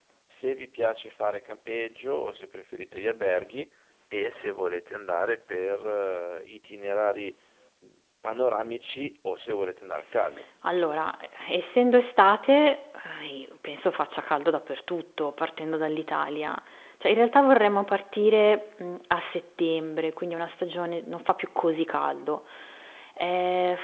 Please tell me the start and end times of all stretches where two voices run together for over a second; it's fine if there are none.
none

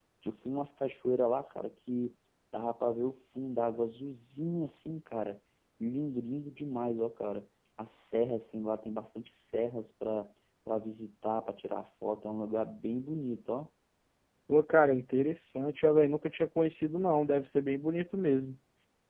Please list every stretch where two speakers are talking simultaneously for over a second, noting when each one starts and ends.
none

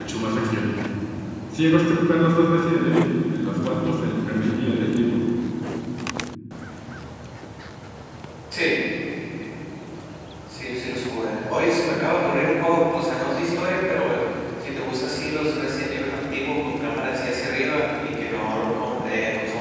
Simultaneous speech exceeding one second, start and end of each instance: none

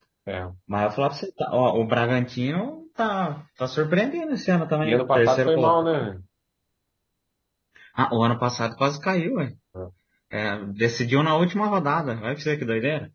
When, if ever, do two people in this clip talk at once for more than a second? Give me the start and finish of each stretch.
4.8-6.1

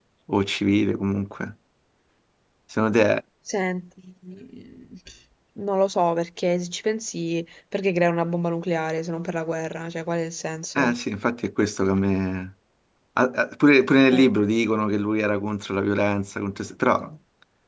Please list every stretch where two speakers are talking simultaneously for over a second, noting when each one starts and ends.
none

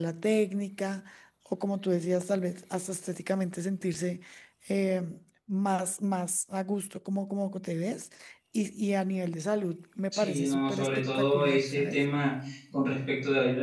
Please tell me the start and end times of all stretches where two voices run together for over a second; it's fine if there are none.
10.1-12.0

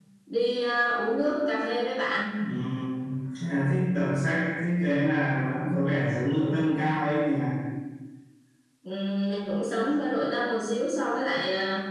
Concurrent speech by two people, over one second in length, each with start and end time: none

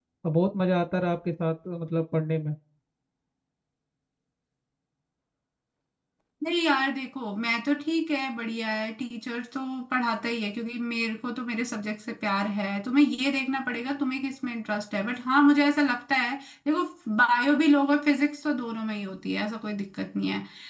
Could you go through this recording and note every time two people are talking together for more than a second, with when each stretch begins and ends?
none

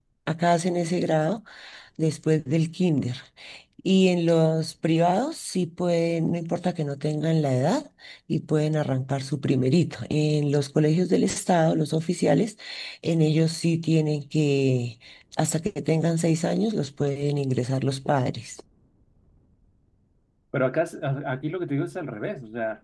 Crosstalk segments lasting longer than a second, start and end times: none

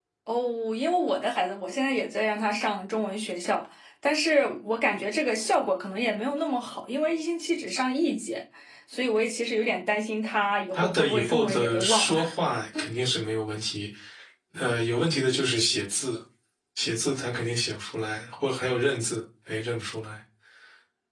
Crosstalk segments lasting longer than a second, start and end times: 10.8-12.2

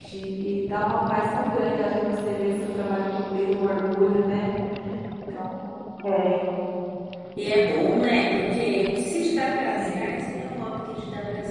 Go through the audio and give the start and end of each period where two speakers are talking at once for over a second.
none

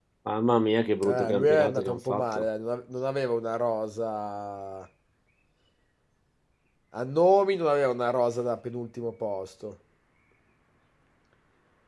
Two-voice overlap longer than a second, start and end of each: 1.0-2.4

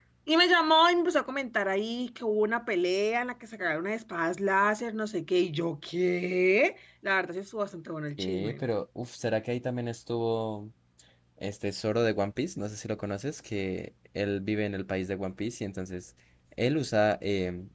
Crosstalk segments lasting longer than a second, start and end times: none

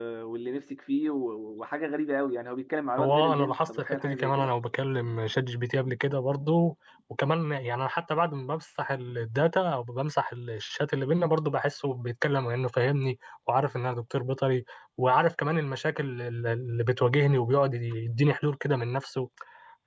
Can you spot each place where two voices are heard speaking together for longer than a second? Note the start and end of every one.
3.0-4.5

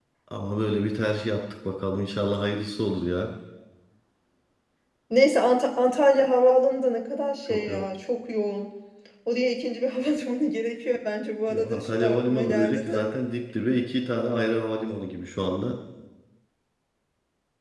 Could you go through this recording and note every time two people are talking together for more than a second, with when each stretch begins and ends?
11.5-13.1

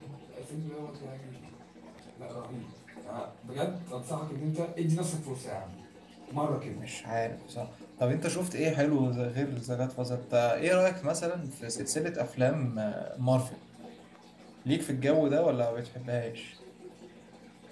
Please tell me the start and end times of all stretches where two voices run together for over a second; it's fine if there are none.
none

